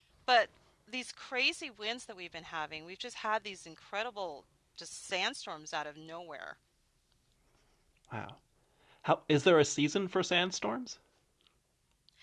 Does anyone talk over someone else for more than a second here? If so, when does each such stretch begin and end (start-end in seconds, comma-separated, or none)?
none